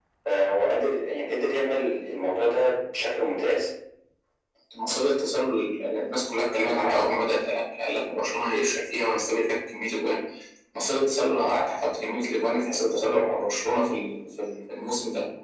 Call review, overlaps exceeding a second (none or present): none